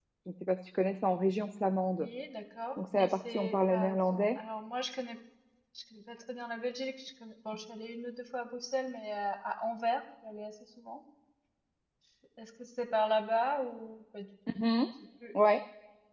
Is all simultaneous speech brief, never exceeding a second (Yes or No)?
No